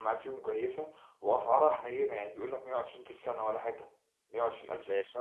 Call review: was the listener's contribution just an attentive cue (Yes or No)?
Yes